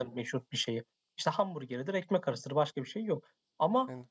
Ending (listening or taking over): listening